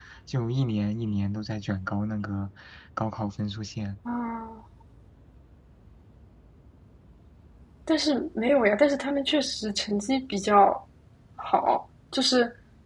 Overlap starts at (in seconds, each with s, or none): none